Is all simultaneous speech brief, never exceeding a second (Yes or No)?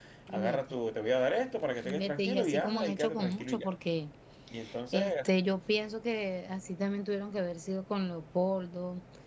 No